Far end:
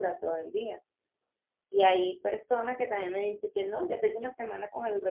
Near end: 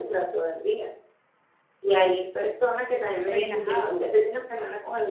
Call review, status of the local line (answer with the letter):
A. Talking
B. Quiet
A